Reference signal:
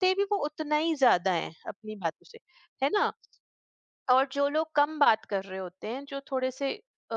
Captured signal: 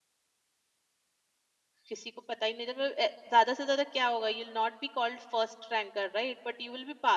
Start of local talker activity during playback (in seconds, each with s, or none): 1.9 s